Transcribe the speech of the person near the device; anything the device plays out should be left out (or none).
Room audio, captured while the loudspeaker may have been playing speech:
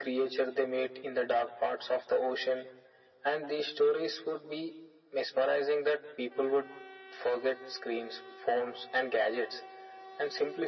none